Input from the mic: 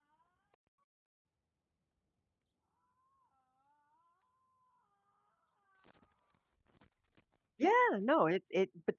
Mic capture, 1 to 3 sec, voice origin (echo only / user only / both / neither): neither